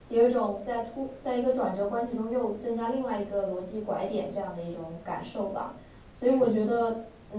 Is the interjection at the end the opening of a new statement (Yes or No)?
No